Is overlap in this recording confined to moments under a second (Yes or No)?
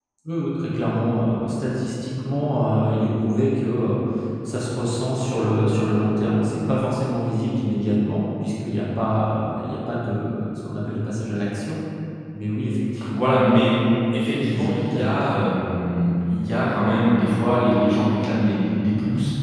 No